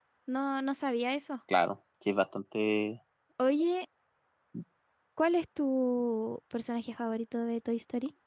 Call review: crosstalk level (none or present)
none